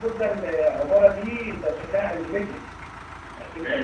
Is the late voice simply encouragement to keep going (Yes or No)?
No